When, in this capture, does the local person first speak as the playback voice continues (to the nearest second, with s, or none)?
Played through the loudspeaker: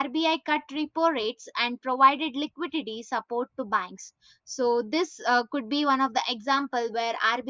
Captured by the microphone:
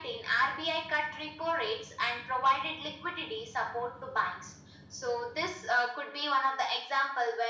none